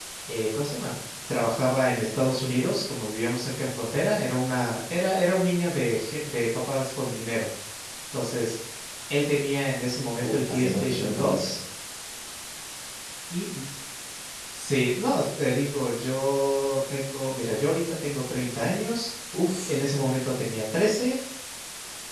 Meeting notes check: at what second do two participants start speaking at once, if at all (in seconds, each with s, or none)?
10.2 s